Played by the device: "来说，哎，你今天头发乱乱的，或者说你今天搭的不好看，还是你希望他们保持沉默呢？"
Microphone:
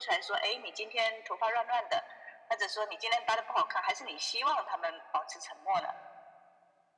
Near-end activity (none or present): none